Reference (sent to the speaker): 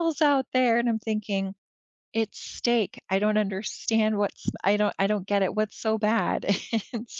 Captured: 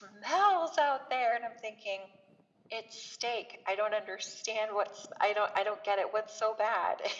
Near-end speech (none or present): none